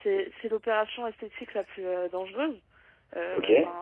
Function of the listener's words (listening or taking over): listening